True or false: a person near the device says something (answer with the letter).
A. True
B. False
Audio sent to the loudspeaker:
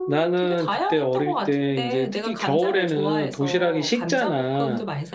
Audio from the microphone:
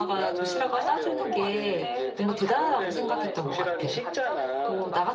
A